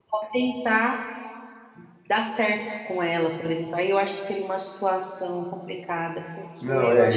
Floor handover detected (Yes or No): Yes